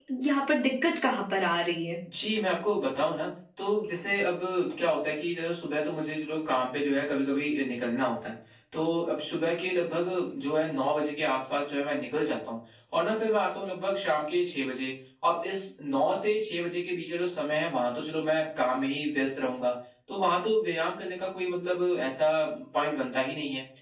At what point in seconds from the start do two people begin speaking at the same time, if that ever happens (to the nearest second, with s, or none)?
none